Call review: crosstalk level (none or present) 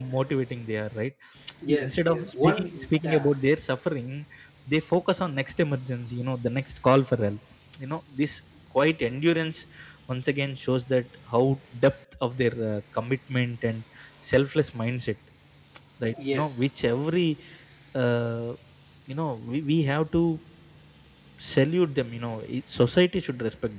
present